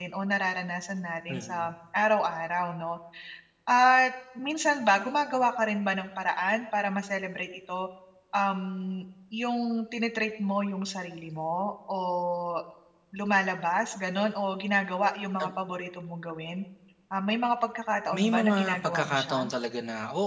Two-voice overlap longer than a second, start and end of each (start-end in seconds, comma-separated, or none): 18.1-19.4